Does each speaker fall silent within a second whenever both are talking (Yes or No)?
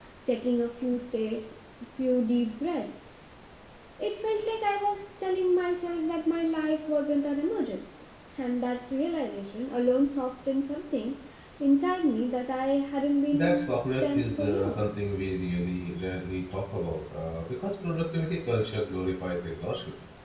No